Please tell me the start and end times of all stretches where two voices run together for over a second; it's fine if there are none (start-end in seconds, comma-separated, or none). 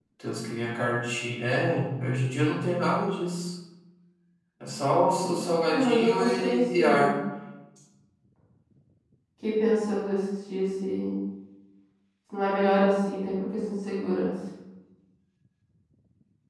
5.7-7.1